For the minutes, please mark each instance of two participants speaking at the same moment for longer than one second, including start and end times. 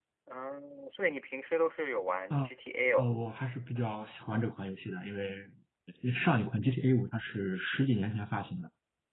none

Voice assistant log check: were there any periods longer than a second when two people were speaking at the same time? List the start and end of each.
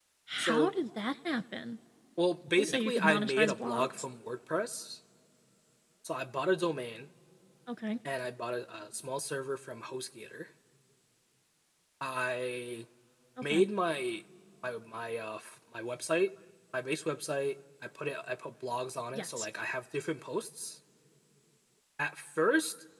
2.6-4.0

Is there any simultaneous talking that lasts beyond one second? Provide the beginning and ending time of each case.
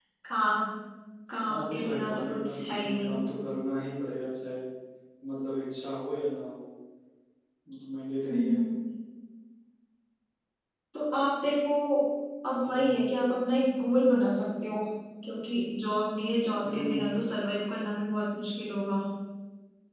1.5-3.2

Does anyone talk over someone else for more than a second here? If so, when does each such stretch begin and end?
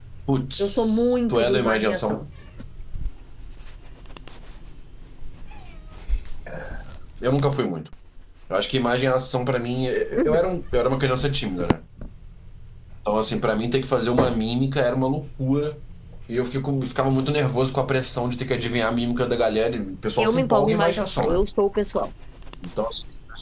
0.6-2.2, 20.2-21.4

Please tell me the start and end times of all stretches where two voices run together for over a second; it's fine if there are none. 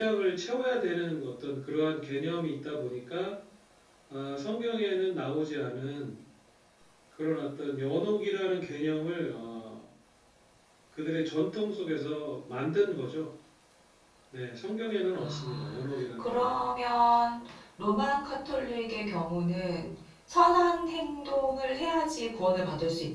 15.2-16.5

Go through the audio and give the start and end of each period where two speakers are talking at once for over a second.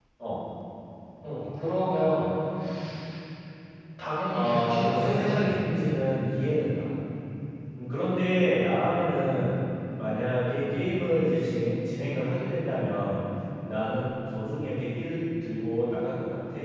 4.3-5.6

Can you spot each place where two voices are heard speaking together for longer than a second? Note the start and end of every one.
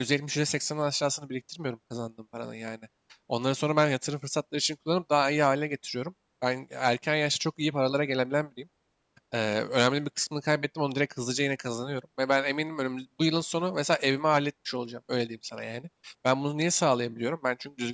none

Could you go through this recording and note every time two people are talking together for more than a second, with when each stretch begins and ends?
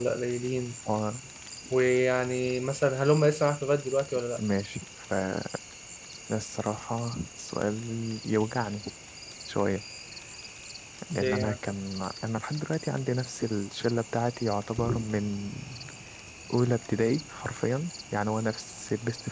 none

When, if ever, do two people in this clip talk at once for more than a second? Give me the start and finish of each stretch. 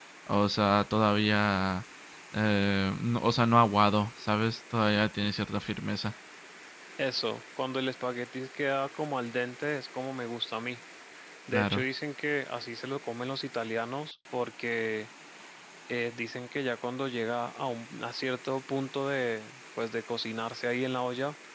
none

